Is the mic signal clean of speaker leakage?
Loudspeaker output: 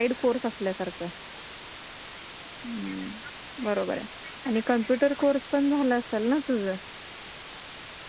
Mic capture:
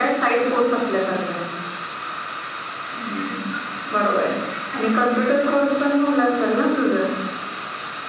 No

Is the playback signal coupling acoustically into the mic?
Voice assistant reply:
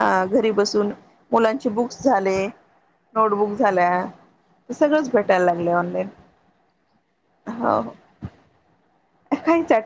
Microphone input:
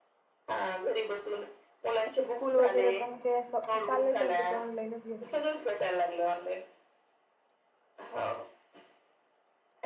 Yes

